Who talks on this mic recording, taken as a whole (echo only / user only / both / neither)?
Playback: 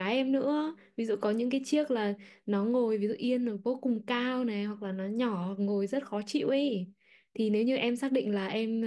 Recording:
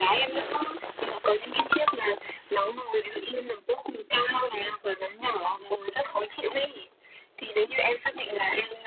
echo only